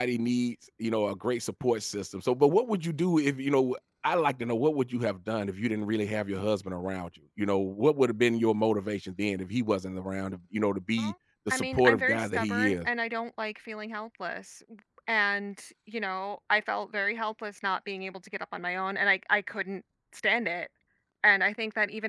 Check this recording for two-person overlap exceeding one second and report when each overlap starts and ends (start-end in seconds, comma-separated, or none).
11.5-12.9